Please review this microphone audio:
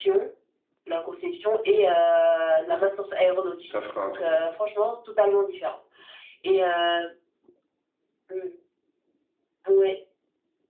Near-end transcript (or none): ça fera un trou?